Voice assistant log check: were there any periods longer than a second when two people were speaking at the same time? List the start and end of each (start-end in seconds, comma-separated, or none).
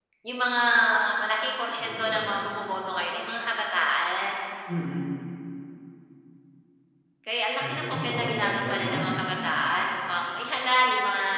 7.6-8.9